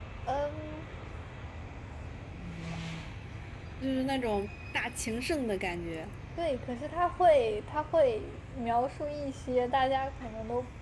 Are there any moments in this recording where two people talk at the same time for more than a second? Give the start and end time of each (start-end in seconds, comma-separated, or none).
none